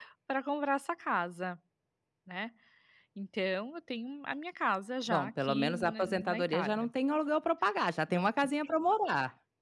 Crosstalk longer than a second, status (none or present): present